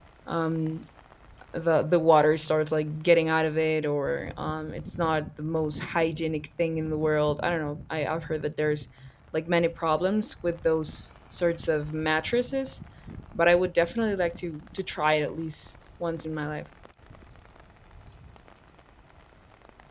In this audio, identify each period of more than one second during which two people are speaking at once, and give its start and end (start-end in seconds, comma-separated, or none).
none